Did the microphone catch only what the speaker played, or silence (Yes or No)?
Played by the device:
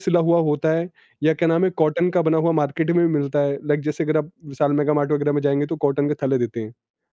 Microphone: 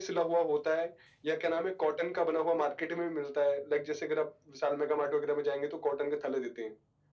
Yes